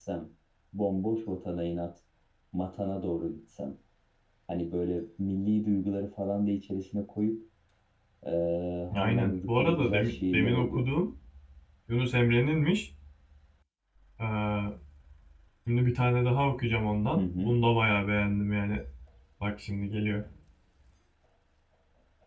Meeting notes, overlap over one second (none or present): present